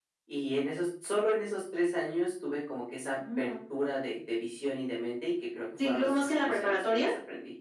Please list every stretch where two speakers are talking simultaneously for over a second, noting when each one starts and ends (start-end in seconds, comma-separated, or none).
5.8-7.1